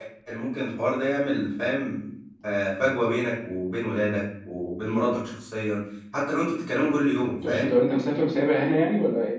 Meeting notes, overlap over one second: none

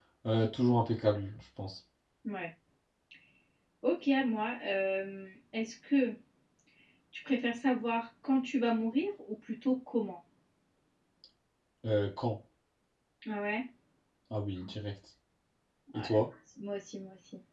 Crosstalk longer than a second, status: none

